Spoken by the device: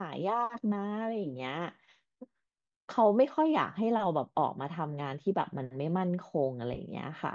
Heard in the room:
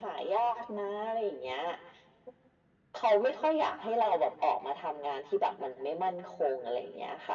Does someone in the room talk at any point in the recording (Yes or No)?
No